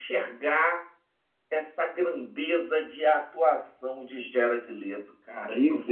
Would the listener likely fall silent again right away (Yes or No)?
No